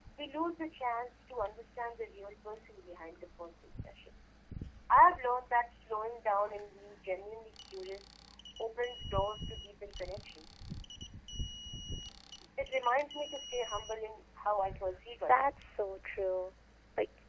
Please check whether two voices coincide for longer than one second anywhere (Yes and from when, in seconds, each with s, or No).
No